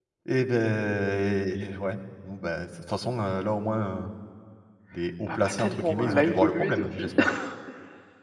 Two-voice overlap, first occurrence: 5.3 s

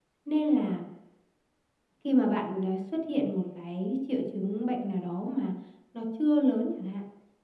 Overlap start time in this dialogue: none

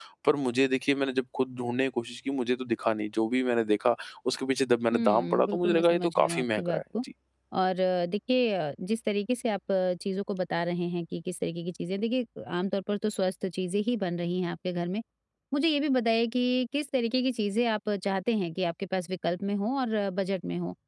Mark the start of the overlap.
4.9 s

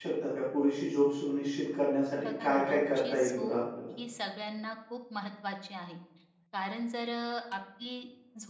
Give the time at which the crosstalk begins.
2.2 s

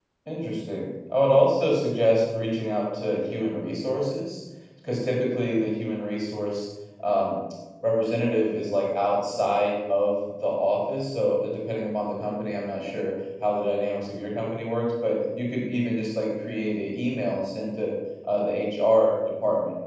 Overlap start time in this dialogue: none

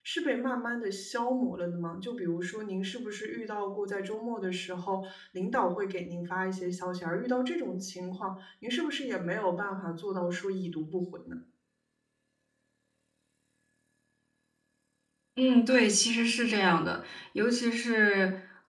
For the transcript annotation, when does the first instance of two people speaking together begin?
none

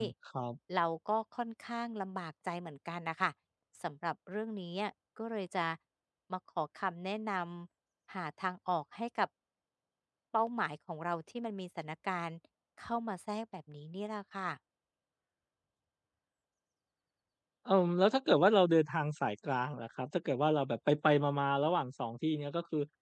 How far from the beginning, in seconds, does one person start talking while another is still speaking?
none

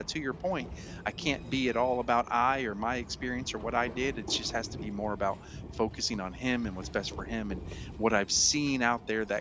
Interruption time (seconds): none

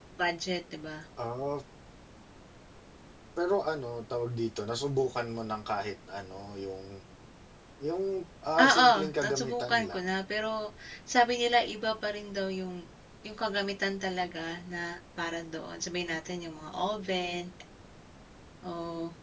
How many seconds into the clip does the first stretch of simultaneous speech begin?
8.7 s

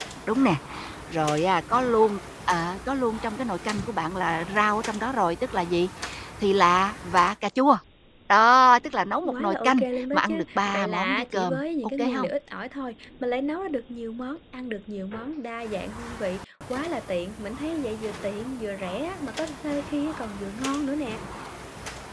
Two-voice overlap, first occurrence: 9.2 s

